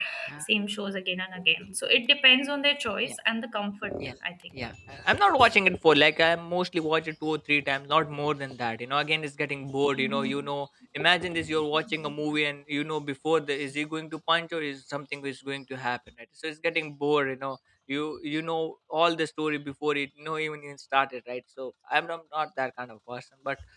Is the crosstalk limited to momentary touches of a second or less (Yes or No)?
Yes